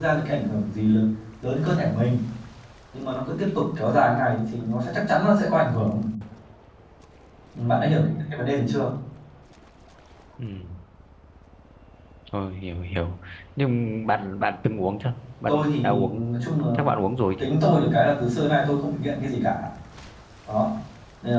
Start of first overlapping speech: 15 s

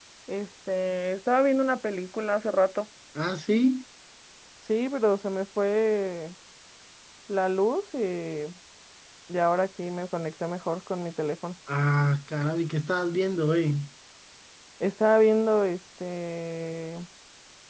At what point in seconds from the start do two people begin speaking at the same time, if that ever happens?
none

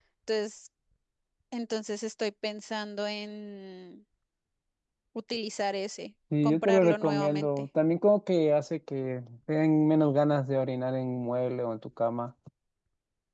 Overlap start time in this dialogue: 6 s

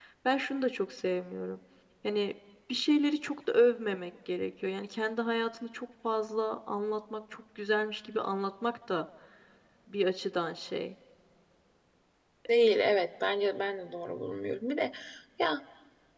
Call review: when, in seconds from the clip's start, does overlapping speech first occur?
none

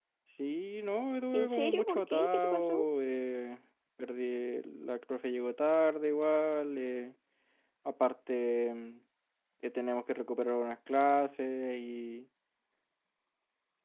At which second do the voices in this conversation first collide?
1 s

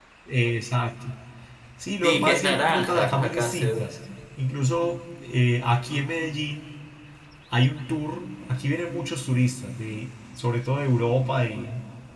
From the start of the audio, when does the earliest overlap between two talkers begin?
2 s

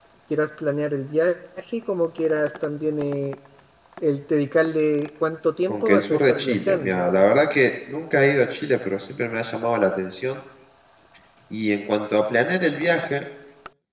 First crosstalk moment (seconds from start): 6 s

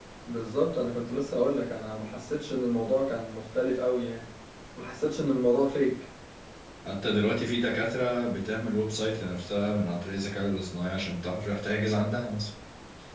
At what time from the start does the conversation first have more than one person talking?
none

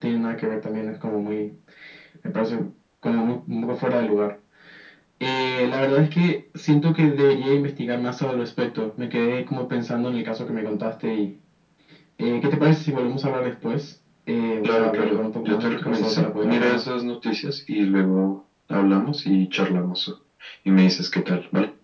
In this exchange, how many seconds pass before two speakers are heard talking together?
15 s

